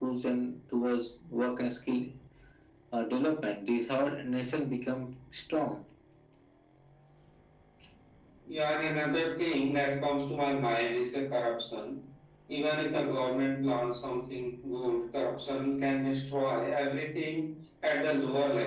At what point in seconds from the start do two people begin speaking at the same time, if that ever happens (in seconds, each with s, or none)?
none